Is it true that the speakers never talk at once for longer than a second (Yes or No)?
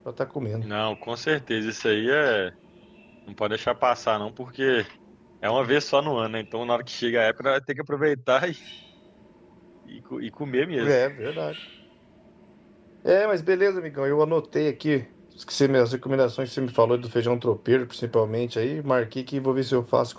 Yes